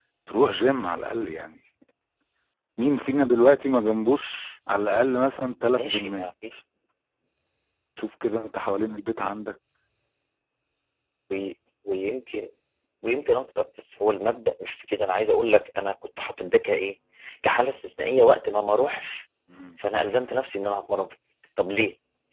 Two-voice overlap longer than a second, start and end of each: none

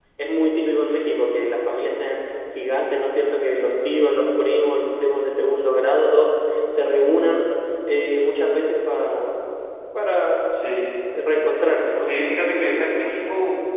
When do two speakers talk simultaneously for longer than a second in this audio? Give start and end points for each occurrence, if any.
12.0-13.2

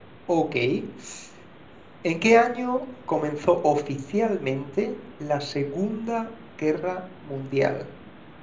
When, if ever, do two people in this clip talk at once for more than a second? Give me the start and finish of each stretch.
none

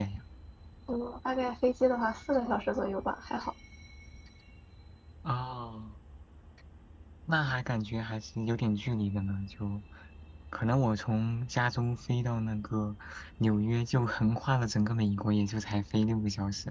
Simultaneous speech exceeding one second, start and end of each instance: none

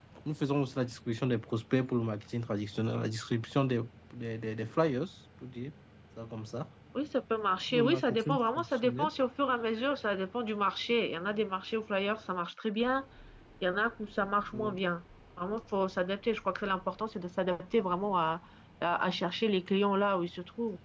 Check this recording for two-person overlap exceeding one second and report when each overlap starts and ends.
7.7-9.1

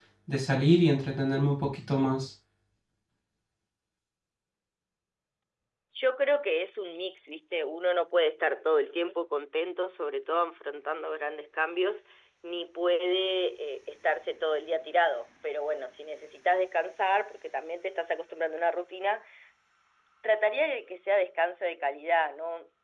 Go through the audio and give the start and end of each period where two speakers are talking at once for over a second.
none

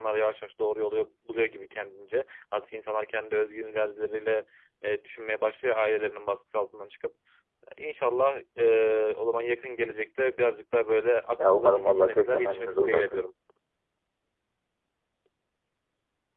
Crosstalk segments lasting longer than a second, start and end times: 11.4-13.2

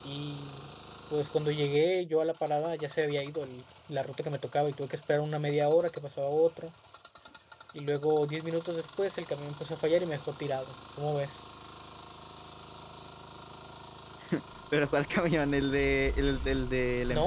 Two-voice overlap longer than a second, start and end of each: none

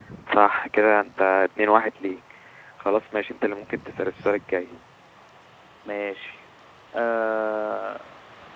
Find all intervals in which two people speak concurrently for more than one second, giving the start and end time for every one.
none

